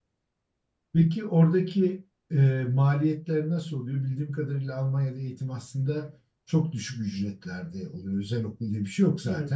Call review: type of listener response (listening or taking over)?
listening